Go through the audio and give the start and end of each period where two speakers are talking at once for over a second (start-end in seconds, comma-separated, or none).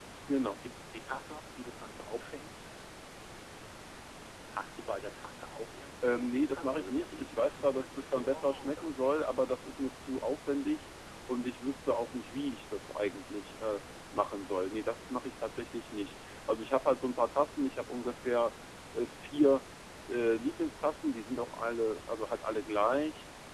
6.0-8.9